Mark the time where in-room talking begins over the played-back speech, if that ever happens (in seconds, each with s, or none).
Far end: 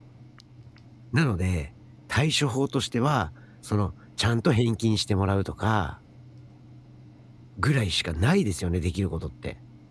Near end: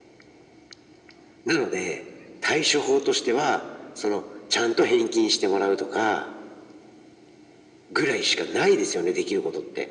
none